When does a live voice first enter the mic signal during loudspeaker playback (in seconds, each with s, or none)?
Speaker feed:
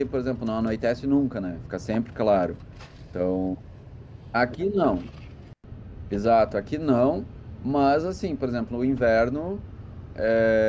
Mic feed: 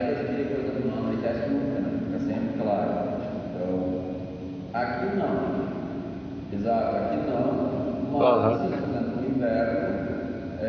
8.2 s